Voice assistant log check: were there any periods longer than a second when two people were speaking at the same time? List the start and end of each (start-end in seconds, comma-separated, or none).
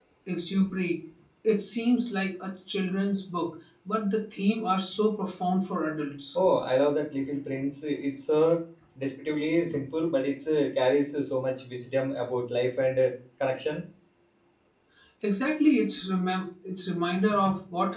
none